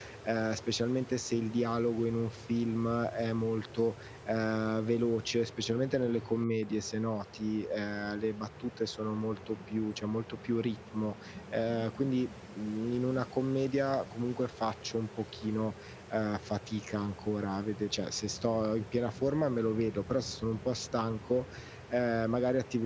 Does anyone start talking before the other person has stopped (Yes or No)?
No